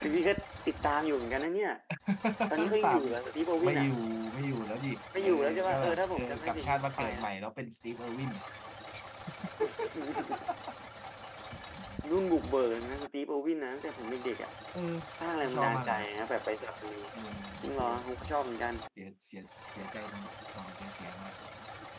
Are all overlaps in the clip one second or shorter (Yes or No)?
No